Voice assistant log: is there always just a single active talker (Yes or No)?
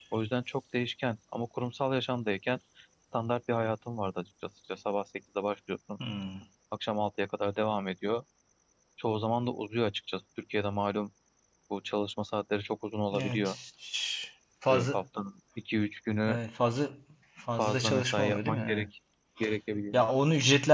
No